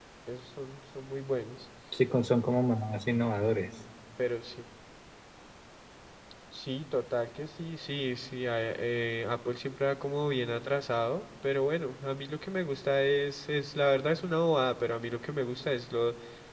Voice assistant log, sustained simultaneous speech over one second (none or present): none